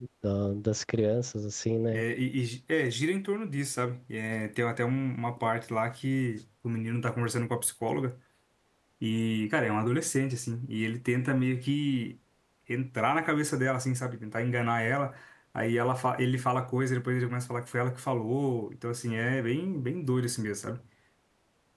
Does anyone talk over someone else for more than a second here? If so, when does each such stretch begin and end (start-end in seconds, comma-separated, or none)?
none